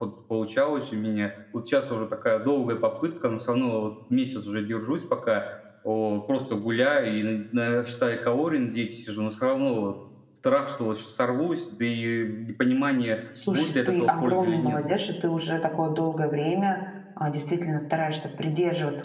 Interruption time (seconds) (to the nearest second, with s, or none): 13 s